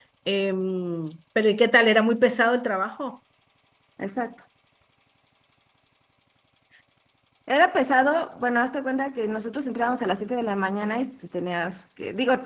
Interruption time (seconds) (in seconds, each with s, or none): none